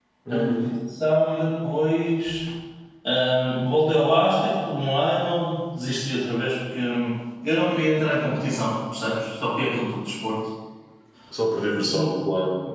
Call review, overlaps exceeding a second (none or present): none